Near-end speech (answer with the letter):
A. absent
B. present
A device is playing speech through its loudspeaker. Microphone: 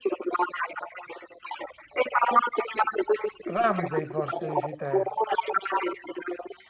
B